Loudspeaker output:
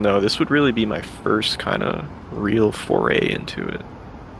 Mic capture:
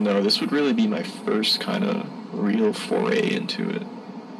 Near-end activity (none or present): none